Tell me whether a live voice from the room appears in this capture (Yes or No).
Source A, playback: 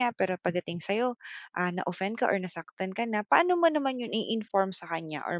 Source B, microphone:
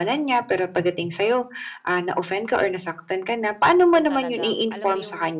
Yes